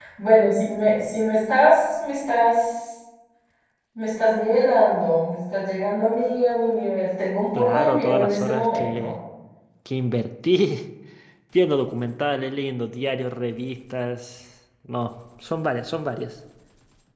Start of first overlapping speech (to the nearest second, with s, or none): 8 s